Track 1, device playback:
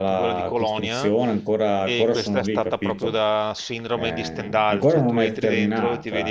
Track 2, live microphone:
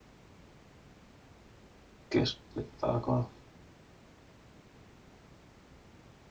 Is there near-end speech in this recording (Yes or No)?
Yes